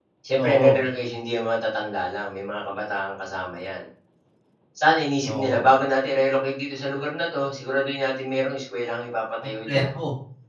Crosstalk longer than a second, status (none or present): none